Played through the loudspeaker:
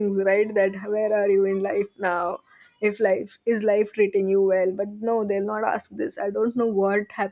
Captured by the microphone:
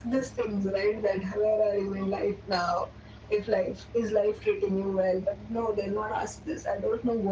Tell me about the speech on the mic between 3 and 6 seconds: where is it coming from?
echo only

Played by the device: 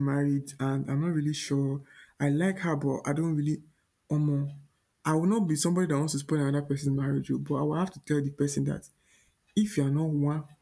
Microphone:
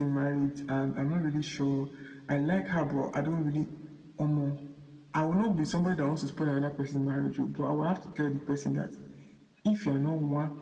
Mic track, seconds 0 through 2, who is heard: echo only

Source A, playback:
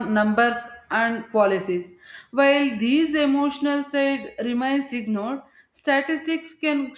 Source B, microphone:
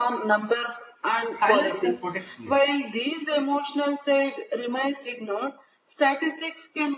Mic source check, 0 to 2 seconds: both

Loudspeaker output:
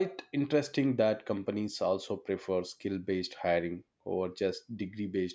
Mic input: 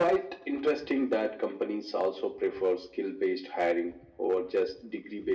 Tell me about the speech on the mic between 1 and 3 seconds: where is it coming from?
echo only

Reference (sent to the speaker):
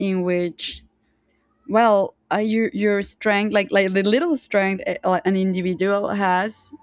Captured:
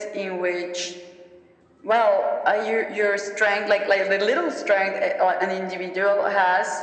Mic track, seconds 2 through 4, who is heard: echo only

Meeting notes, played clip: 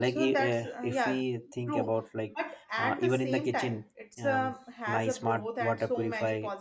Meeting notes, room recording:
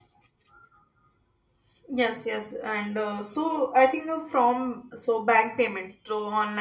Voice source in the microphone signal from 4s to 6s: user only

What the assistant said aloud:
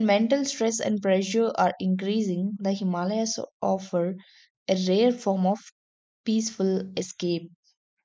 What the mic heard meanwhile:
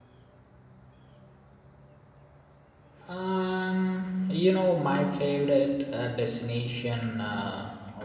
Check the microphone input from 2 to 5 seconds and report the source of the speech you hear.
user only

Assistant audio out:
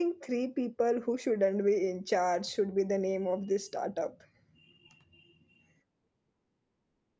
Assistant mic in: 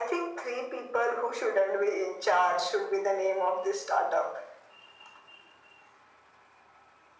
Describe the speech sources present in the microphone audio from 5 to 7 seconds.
neither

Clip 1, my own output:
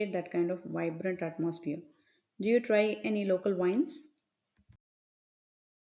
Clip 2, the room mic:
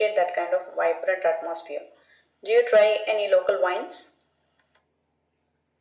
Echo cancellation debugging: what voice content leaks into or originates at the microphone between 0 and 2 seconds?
echo only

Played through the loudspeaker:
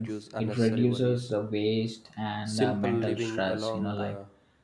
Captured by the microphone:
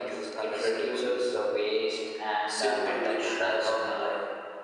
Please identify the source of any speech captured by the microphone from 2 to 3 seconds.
echo only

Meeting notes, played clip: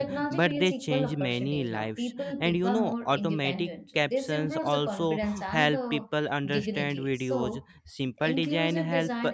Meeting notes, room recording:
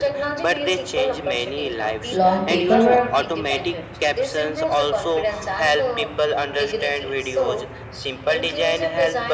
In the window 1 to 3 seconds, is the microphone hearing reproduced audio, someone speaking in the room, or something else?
both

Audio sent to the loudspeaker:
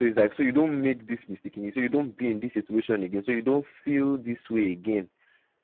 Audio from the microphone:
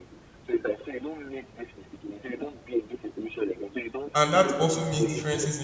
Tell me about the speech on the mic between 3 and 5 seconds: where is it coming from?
both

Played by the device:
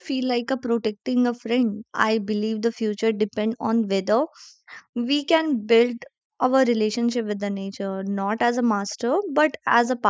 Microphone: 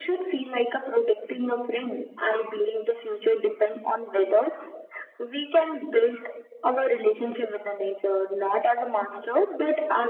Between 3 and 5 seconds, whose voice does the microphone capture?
echo only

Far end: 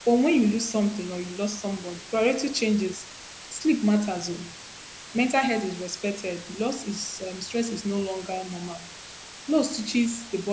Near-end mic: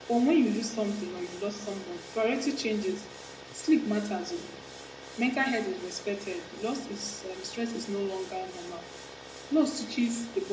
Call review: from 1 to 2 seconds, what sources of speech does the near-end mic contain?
echo only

